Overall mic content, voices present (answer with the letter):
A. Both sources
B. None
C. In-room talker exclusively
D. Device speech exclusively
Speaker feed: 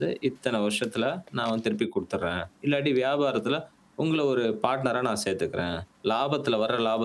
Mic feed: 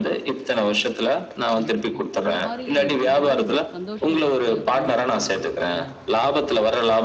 A